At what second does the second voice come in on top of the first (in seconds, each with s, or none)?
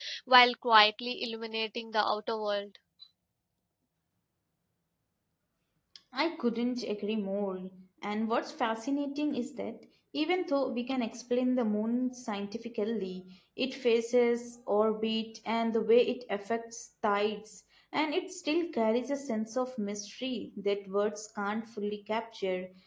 none